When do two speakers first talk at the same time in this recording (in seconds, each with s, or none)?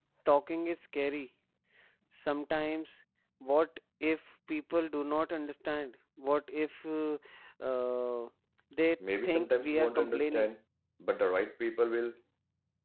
9.2 s